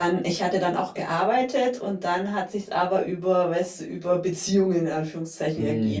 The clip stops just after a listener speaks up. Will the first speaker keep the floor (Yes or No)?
Yes